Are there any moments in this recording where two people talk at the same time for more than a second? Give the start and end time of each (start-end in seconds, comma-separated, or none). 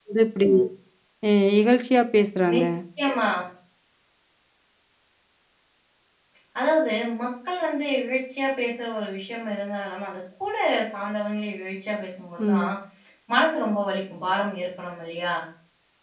none